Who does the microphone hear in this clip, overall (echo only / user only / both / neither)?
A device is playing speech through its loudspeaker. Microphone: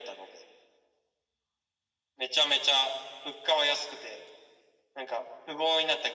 echo only